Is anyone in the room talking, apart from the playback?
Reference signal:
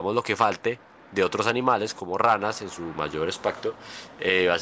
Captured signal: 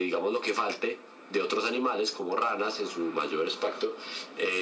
No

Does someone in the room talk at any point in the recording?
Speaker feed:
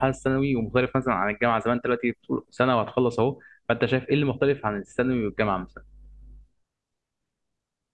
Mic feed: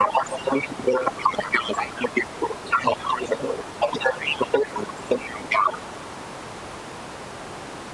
No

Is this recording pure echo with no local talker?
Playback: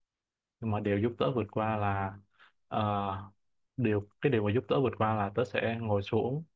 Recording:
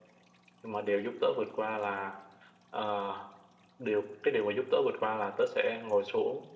Yes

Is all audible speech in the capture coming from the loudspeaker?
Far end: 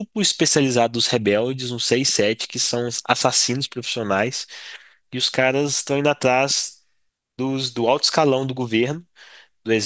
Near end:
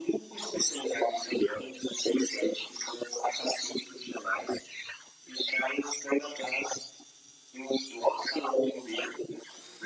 Yes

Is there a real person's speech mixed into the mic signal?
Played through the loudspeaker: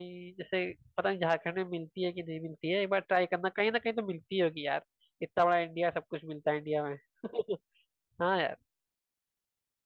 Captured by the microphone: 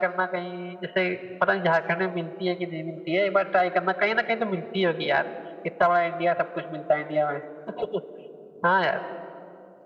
No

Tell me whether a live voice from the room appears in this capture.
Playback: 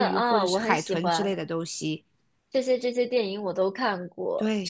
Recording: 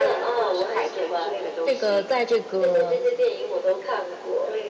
Yes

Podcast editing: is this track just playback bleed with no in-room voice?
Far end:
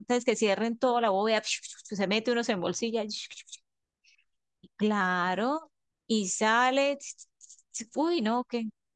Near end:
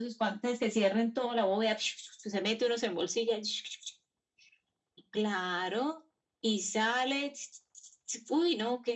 Yes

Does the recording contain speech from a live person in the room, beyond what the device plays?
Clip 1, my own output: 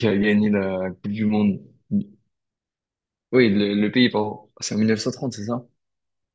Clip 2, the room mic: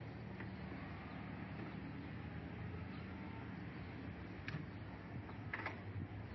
No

